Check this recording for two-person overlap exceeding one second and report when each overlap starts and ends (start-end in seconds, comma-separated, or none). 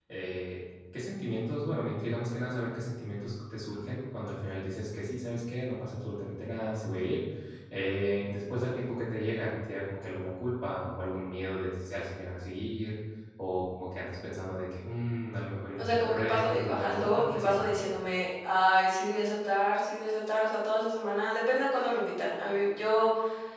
15.8-17.7